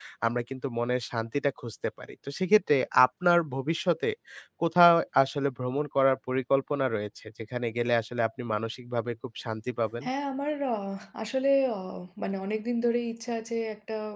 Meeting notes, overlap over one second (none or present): none